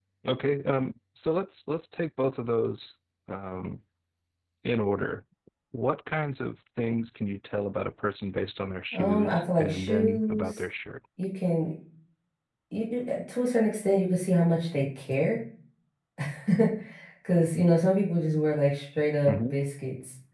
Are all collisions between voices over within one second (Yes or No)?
No